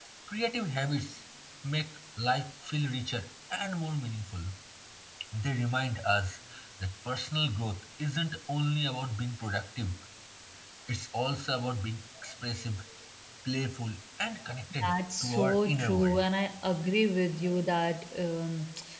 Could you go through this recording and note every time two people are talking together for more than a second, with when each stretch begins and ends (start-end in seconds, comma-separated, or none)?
14.9-16.2